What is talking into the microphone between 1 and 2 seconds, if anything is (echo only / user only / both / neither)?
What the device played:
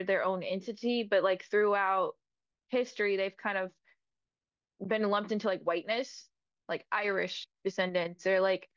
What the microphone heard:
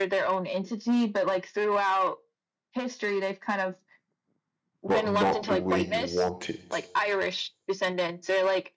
echo only